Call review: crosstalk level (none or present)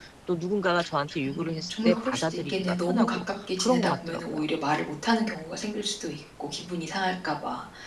present